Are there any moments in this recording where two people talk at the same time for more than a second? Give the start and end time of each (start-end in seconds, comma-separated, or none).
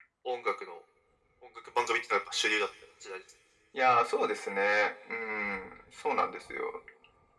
none